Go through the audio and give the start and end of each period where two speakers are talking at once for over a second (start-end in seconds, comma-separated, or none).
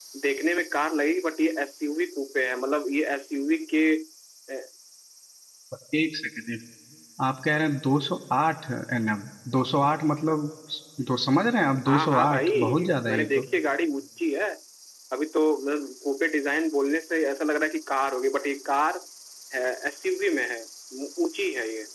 11.9-13.5